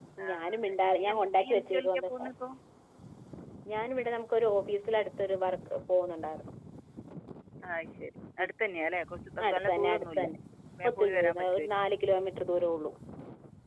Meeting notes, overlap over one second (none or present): present